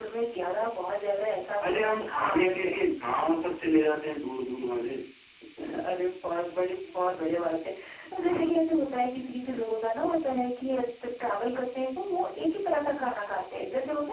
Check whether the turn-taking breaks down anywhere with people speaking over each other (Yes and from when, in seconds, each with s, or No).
Yes, from 1.6 s